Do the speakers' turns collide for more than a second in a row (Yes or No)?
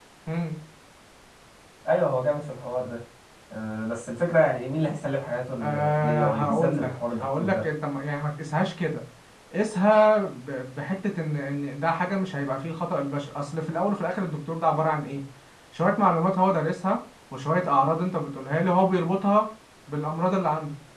Yes